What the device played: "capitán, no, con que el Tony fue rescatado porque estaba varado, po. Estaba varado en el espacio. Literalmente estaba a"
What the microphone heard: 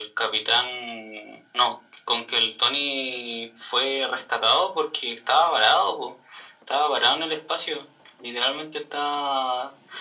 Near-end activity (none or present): none